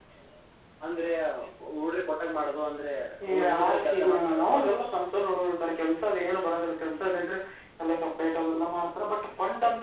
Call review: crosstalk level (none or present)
present